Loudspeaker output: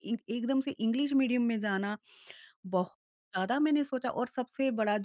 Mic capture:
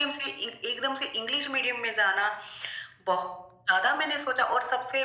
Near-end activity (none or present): none